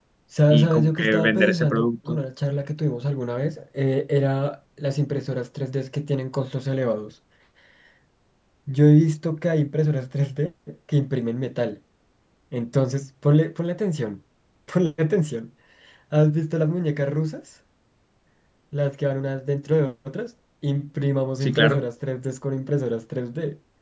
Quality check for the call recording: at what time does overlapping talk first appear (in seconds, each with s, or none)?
0.5 s